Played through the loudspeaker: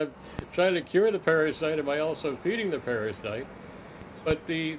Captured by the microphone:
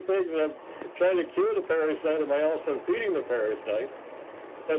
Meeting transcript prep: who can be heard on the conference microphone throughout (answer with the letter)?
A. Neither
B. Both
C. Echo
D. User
C